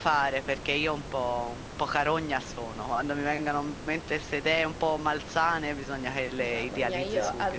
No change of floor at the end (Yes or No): No